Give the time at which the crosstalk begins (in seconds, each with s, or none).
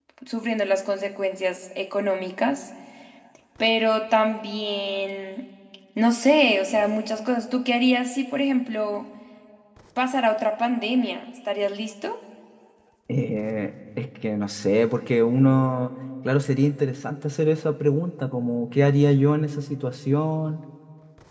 none